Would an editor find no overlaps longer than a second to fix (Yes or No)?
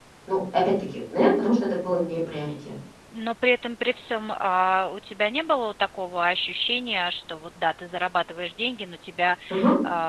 Yes